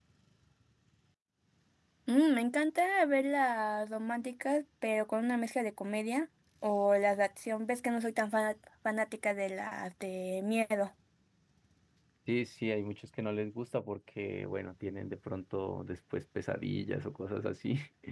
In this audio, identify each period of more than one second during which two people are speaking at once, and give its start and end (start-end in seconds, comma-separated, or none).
none